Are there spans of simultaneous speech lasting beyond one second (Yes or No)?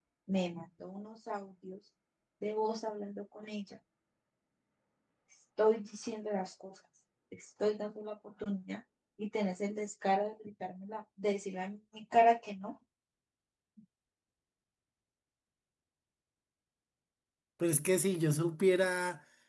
No